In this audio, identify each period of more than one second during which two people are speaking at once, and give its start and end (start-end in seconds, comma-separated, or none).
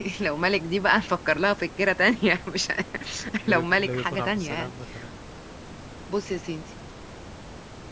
3.5-4.7